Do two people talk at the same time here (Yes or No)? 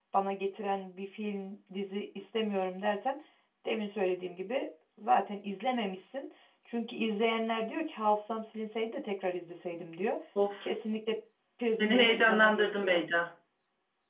Yes